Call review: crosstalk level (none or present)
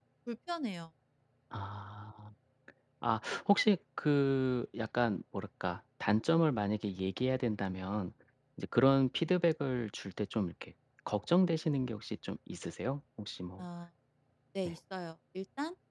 none